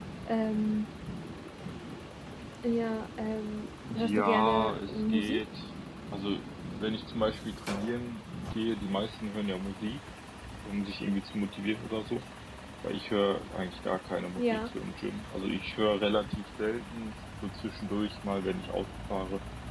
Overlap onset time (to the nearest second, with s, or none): 4 s